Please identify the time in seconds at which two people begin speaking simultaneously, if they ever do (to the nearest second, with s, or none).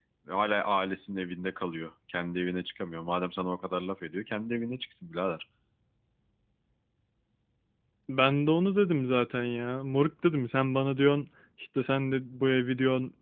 none